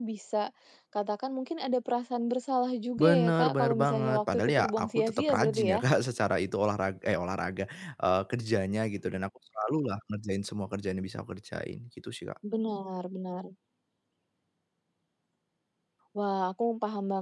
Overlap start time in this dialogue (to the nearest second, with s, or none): 3 s